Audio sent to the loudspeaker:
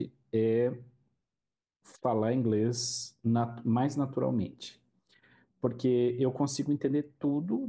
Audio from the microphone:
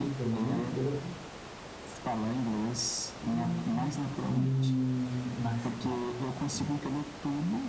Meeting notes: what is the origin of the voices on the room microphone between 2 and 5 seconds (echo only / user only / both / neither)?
both